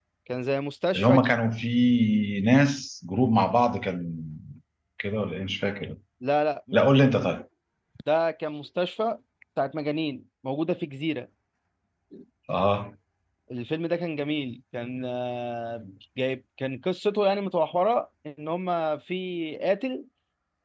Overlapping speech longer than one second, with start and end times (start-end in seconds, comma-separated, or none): none